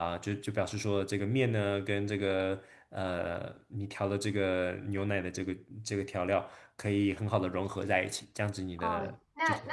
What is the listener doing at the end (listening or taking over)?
taking over